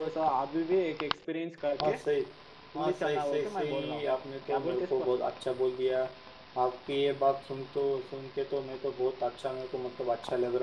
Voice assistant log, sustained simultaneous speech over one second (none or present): present